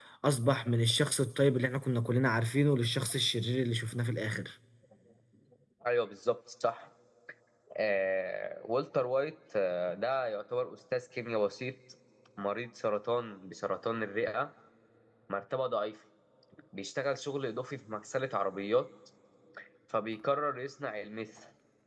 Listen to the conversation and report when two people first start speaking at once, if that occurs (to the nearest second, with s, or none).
none